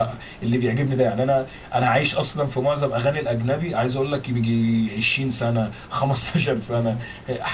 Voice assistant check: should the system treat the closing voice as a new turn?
No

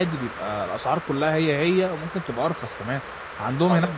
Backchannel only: Yes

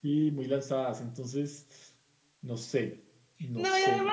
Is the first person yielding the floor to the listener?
Yes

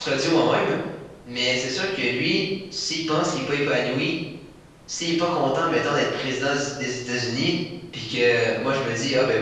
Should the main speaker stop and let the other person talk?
No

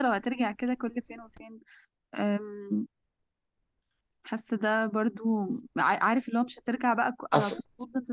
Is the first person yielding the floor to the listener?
No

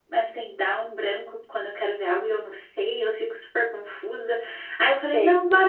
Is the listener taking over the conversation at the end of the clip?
No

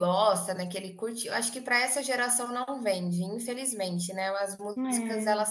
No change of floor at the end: Yes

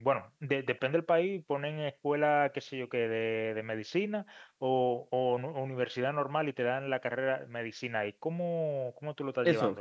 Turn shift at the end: Yes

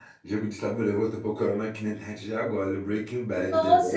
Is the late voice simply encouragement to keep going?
No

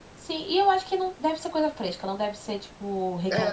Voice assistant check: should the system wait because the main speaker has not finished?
No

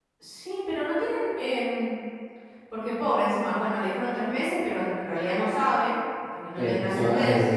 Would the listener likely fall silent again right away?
No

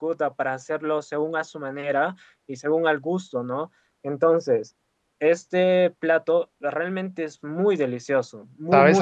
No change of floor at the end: No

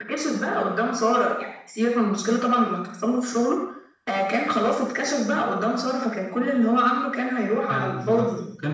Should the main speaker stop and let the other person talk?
Yes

